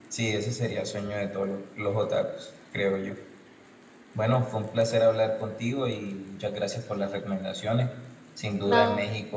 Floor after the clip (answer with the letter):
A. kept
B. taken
A